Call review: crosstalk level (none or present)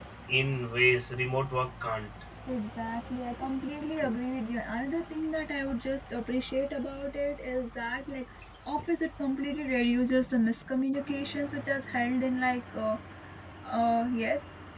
none